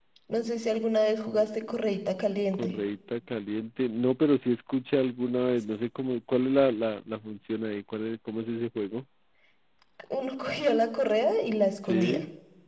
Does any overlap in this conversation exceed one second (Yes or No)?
No